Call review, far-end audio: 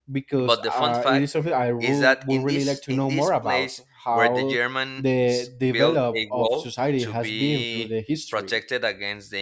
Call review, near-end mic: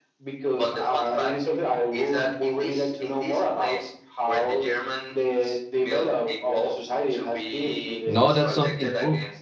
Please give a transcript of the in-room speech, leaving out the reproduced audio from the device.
No, that's something cool.

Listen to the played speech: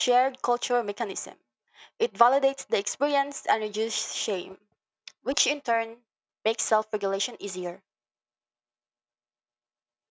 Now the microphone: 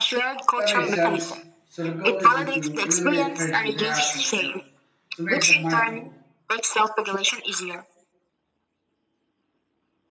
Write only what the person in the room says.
That makes sense. So the goal isn't to eliminate fringe interactions, but to make them mindful.

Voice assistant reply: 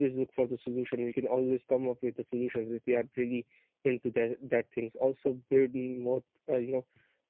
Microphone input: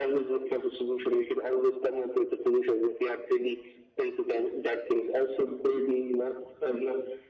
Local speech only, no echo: none

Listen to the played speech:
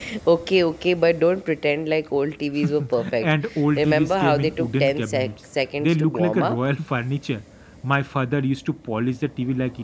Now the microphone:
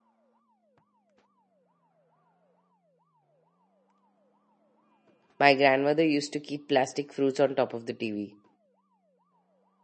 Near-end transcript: My grandmother used to keep plastic fruits on top of the TV.

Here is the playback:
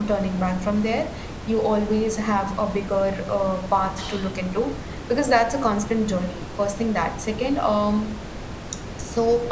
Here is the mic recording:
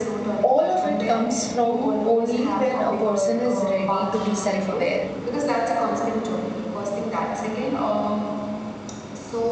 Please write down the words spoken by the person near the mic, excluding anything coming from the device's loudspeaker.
all of it comes from only when a person is ready to be self aware.

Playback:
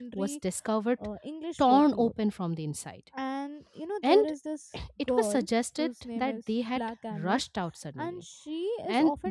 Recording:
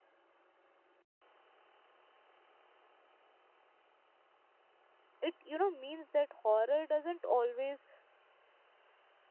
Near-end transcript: it you know means that horror doesn't always

